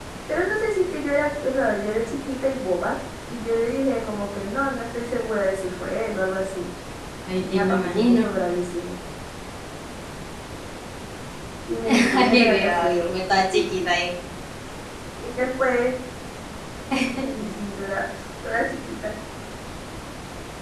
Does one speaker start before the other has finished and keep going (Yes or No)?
Yes